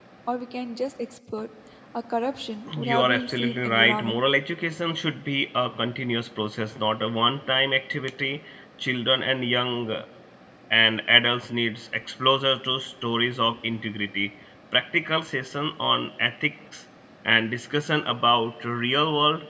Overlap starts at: 2.8 s

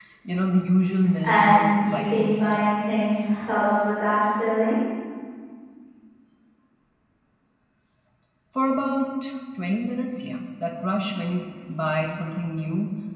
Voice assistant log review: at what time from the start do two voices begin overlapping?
1.2 s

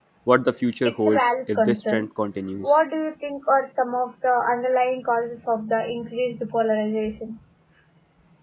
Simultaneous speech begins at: 0.8 s

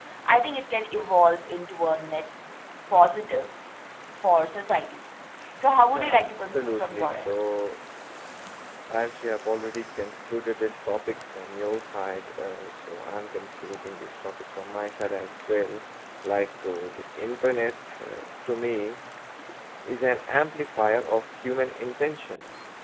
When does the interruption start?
5.9 s

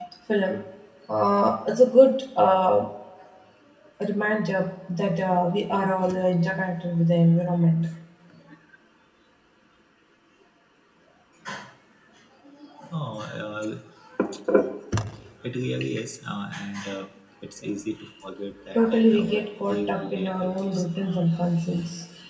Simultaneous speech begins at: 18.8 s

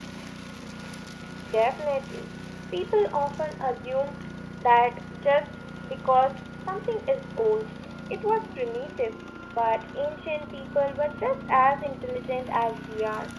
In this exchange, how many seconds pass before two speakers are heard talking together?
none

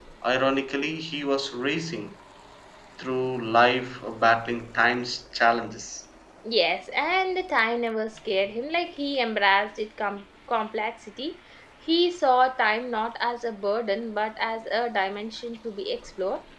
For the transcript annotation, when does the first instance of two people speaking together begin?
none

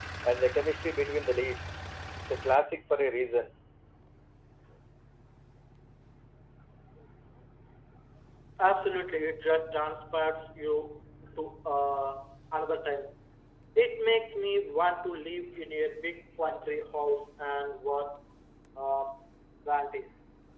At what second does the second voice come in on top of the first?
none

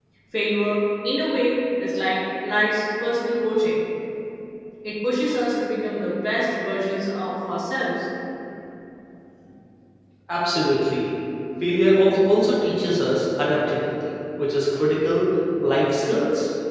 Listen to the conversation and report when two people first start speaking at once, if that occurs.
none

